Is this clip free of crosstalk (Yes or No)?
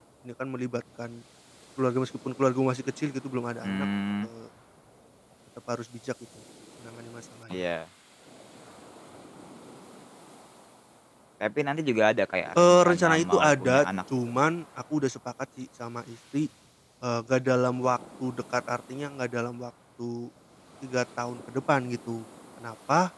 No